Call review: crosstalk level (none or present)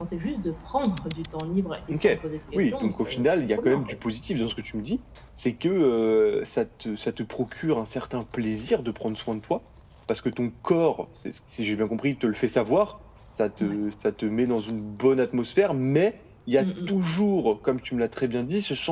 present